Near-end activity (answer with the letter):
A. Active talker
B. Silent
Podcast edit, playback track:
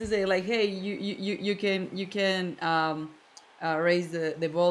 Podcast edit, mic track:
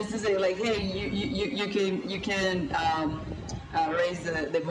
B